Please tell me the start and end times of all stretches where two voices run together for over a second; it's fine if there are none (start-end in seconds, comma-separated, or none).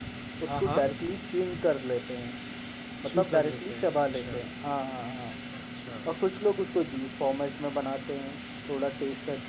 3.1-4.4